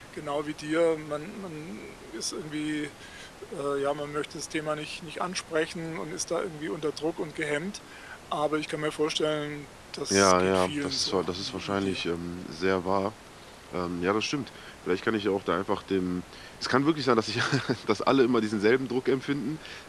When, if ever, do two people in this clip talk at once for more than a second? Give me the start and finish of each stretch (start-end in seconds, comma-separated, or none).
10.1-12.0